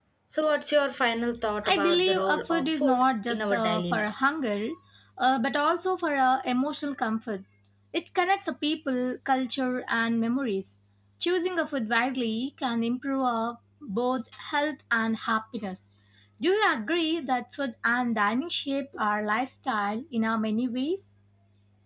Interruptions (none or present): present